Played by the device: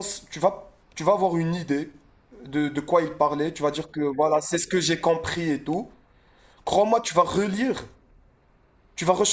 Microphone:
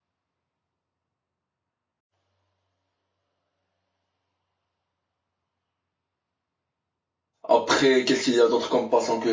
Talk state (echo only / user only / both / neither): user only